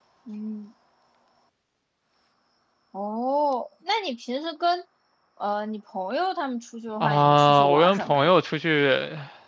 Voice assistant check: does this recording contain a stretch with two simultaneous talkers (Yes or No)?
Yes